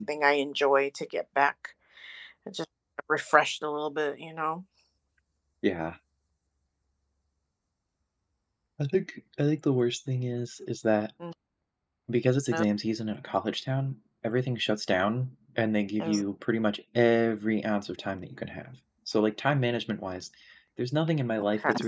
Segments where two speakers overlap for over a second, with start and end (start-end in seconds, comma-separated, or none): none